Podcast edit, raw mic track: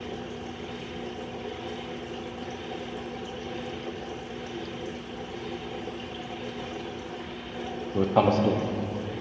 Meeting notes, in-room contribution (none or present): present